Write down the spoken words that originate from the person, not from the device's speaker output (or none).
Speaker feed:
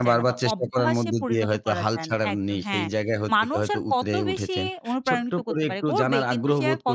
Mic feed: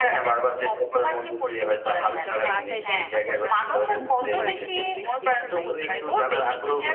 অ্যা যখন বাসায় যাই, তখন আসলে মনোমুগ্ধকর একটা পরিবেশ দেখতে পাই।